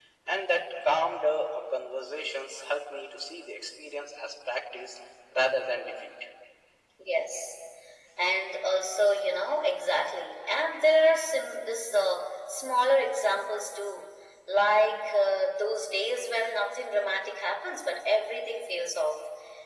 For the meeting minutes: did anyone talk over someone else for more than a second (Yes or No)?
No